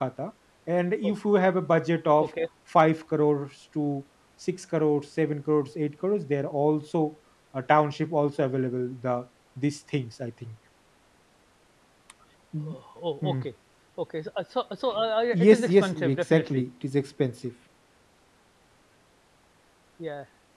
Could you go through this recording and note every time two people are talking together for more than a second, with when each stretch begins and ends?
15.3-16.6

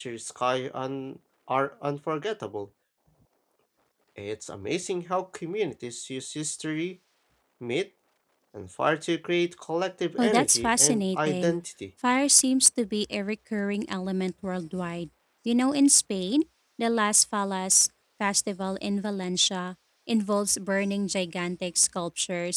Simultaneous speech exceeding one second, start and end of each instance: 10.2-11.6

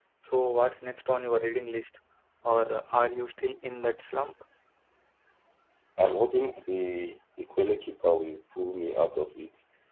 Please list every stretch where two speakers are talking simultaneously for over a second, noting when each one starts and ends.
none

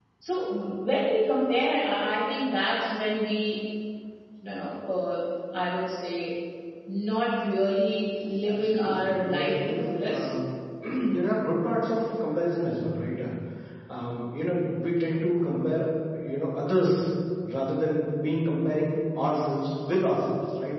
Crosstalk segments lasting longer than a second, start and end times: 8.5-10.3

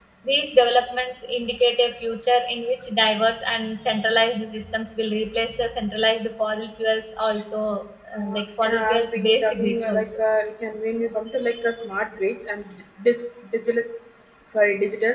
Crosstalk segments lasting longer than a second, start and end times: 8.2-10.2

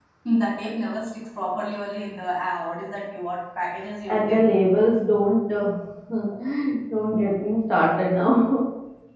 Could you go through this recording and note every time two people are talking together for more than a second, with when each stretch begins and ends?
none

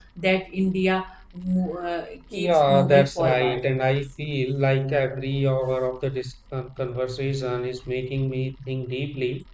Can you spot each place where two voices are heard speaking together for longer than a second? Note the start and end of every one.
2.3-3.6

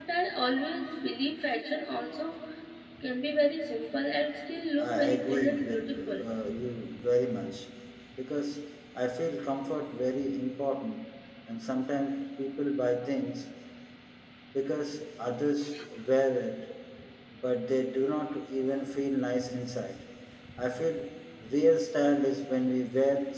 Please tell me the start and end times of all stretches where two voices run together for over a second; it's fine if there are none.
4.8-6.2

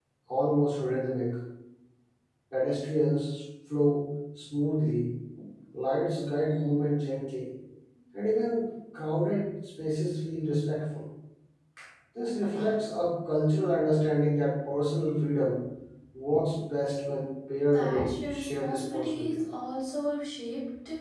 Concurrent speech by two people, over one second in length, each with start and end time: 17.7-19.4

